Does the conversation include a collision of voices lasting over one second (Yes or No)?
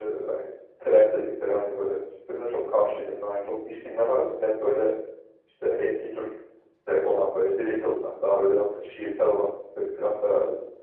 No